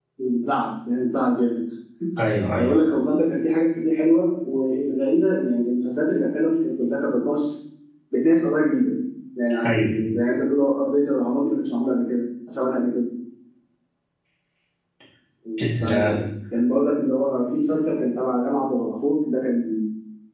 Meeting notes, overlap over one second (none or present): none